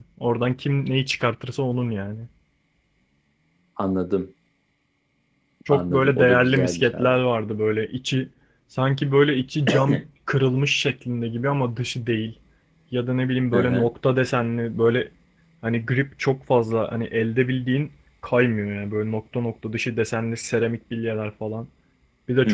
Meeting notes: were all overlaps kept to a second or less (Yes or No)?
No